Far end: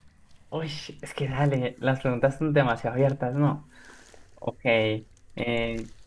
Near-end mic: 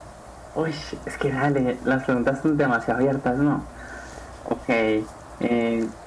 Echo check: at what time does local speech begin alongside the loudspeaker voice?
none

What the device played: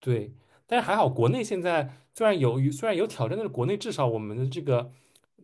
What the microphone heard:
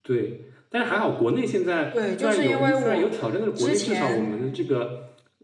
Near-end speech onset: 1.9 s

